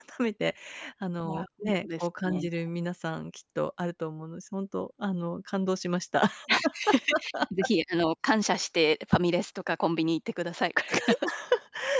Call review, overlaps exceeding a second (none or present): present